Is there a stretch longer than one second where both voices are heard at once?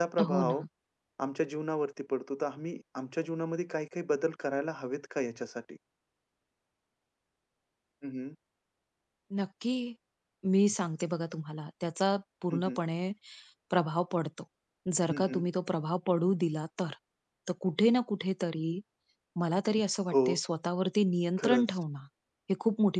No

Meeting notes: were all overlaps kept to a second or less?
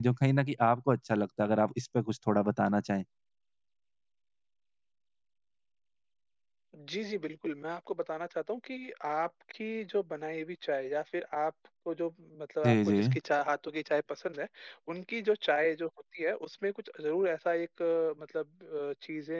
Yes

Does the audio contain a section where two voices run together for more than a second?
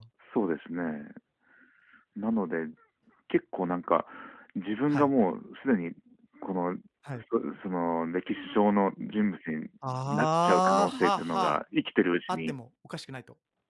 Yes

